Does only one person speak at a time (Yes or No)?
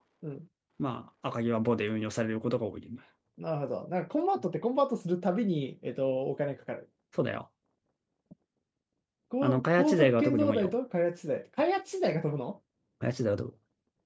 No